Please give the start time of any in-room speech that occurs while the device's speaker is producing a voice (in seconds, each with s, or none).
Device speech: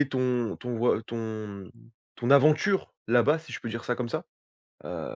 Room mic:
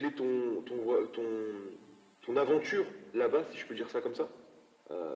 none